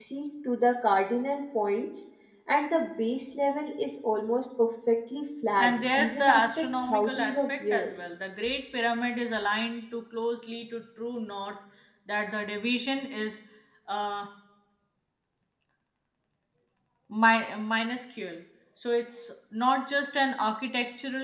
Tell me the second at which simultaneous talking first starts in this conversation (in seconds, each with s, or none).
5.5 s